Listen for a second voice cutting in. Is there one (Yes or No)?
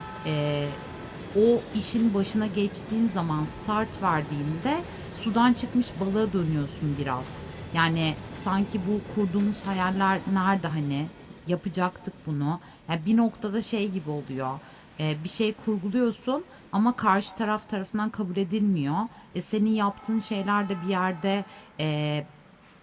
No